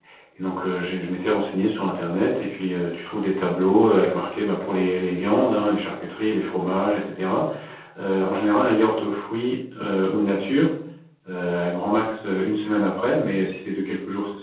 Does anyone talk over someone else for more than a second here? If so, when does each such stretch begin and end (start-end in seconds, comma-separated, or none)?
none